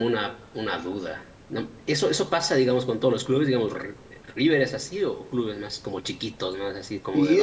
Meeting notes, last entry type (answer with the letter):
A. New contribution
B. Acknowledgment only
A